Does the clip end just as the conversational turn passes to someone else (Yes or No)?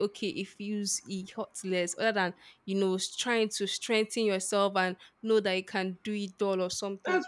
Yes